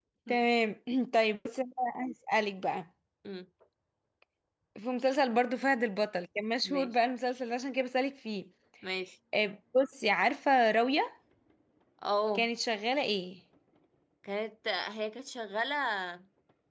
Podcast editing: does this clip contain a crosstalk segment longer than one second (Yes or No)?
No